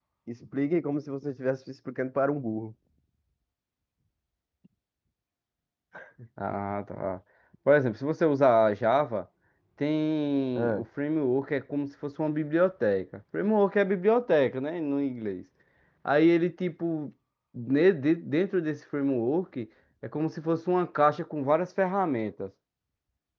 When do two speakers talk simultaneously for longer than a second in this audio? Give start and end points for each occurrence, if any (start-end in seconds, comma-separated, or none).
none